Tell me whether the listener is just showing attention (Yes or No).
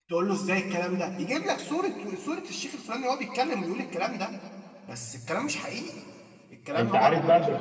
No